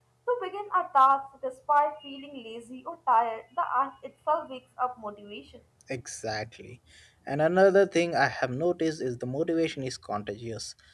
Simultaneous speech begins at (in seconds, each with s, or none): none